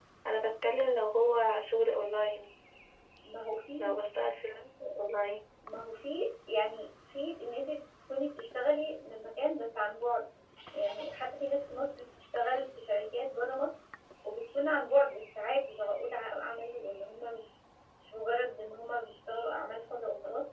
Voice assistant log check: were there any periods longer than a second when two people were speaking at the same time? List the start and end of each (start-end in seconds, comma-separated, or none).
none